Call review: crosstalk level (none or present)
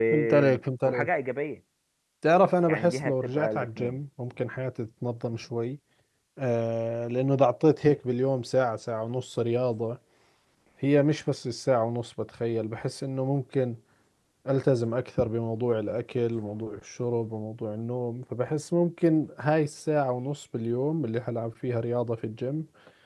present